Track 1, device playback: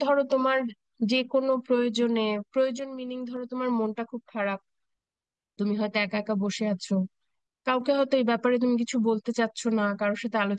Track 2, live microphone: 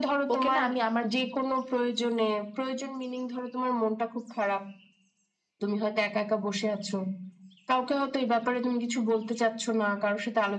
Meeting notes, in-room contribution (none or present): present